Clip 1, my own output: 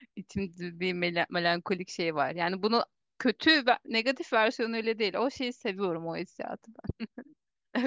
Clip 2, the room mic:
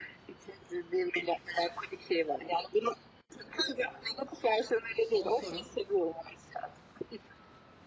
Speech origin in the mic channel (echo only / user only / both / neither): both